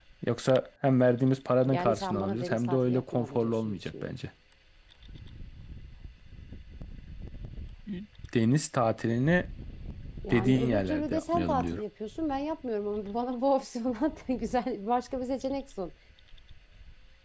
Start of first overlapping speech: 2 s

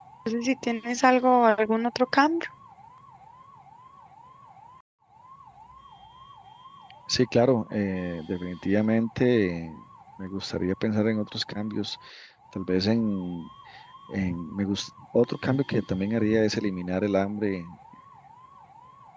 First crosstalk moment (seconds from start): none

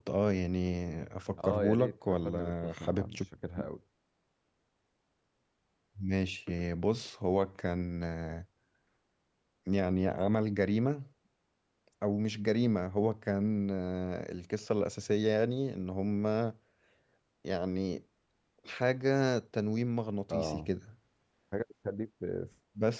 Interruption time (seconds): 1 s

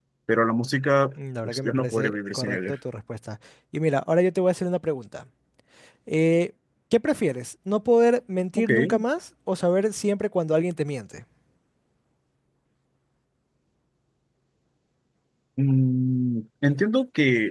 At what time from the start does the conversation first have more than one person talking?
1 s

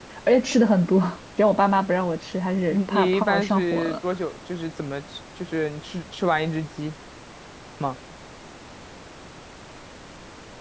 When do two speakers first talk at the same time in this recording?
3 s

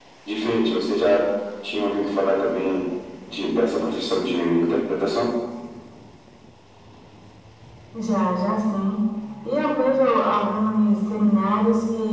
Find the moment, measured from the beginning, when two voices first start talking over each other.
none

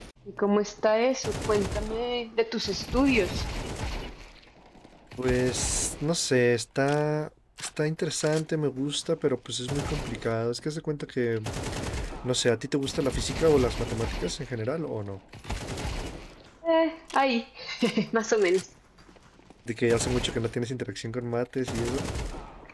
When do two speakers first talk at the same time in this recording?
none

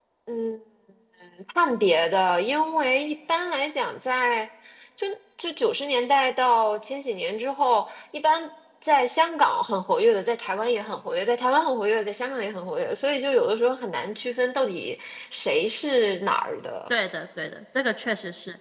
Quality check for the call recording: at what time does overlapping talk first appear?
none

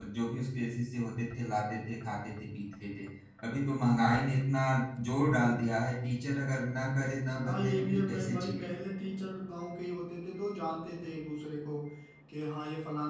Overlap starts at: 7 s

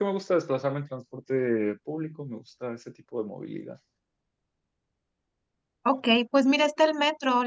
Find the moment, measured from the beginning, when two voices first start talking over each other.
none

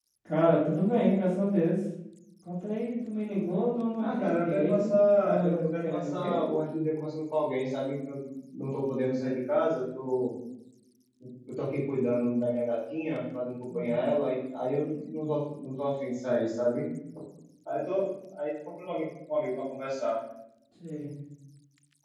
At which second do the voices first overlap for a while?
4 s

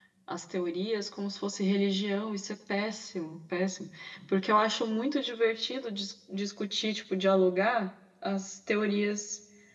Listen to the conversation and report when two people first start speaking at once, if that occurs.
none

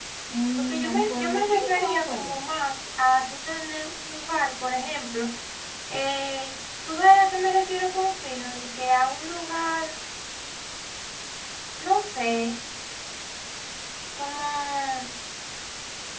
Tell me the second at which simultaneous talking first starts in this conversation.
1 s

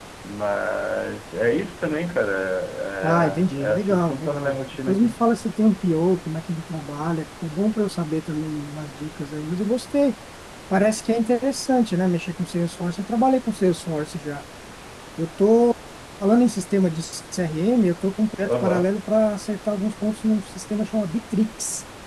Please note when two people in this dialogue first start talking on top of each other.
3 s

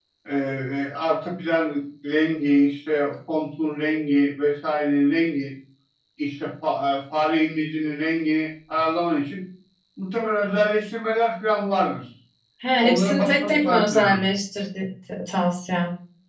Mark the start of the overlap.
13 s

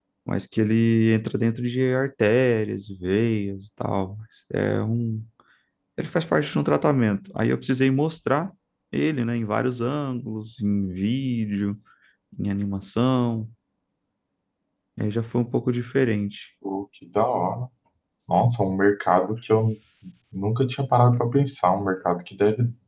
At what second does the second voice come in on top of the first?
none

